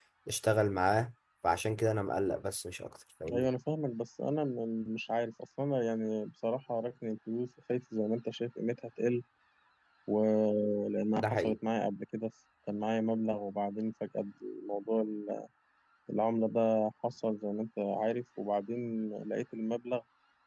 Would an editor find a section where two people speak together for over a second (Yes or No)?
No